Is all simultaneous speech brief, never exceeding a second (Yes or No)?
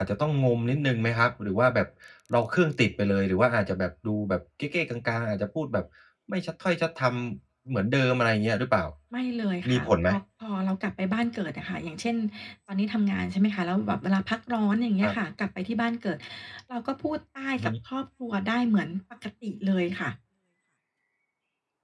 Yes